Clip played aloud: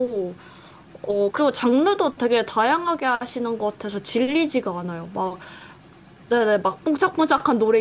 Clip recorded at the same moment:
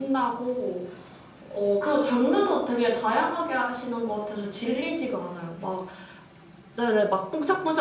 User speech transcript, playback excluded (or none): none